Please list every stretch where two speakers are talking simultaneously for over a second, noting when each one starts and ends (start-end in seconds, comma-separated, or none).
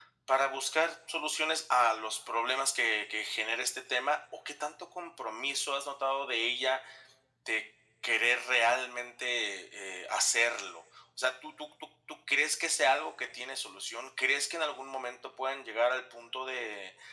none